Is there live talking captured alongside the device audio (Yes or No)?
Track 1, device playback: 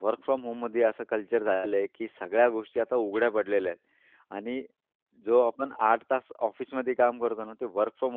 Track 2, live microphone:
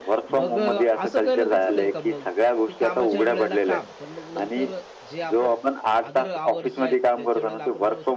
Yes